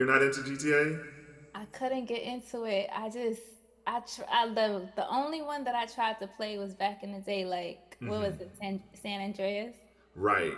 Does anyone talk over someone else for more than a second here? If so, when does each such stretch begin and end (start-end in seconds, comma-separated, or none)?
none